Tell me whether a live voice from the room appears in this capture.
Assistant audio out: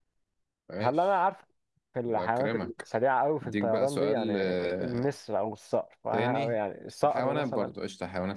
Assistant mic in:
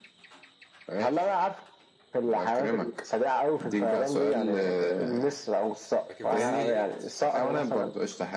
Yes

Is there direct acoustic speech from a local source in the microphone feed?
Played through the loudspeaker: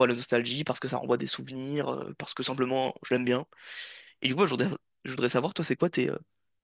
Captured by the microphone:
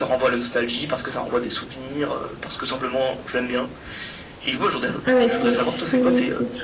Yes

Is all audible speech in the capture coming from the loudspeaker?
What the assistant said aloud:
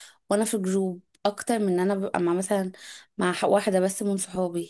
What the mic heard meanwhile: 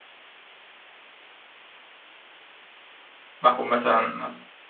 No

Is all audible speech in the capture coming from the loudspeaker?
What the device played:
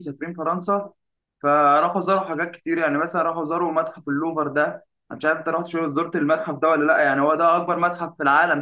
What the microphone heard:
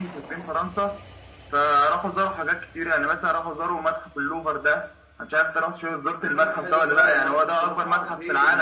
No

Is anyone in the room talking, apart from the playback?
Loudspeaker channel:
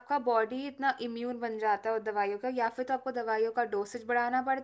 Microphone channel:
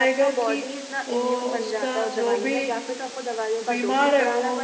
Yes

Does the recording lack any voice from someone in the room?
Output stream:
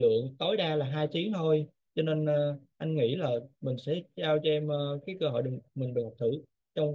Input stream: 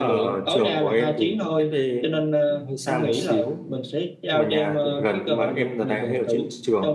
No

